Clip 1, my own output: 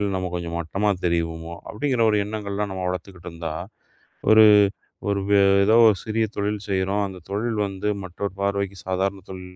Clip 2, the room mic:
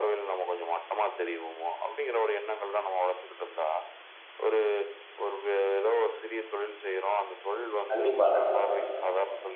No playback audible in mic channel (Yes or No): No